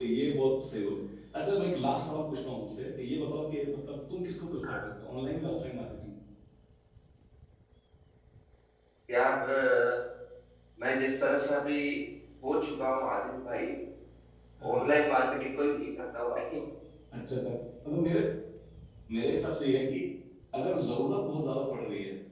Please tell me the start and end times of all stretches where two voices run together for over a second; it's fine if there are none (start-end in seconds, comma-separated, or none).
none